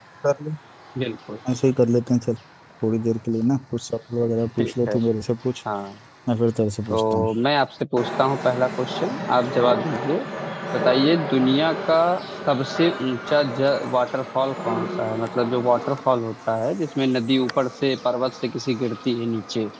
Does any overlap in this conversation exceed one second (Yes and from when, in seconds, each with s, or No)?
No